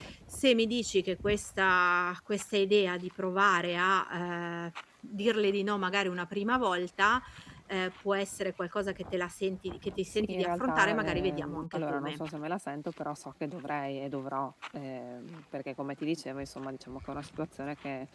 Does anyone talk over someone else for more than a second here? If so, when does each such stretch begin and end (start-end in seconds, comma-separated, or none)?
10.1-12.2